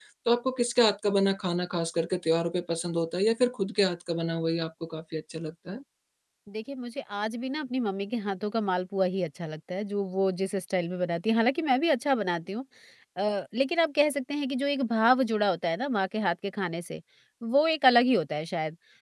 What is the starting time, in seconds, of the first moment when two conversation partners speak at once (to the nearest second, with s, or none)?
none